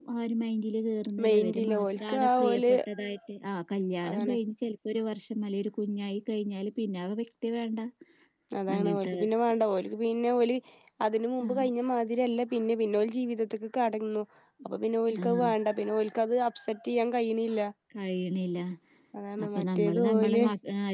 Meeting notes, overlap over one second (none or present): present